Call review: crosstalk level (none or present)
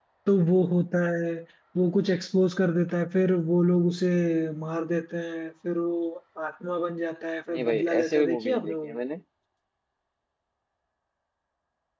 present